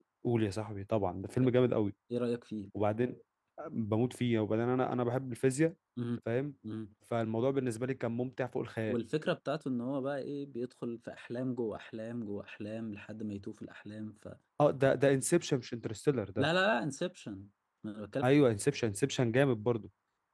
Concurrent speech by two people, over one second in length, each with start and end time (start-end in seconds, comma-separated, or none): none